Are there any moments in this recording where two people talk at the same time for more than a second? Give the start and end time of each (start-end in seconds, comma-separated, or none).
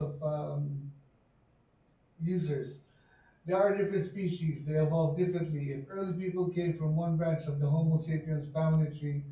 none